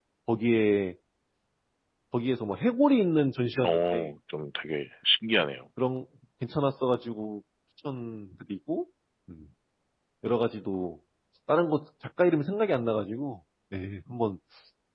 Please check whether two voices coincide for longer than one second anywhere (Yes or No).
No